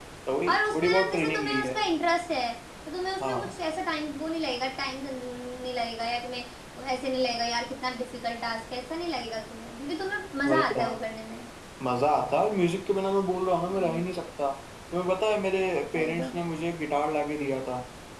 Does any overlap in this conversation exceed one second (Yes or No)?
Yes